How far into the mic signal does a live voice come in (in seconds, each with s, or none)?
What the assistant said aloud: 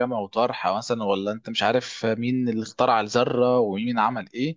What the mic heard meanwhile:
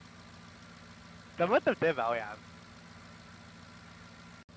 1.4 s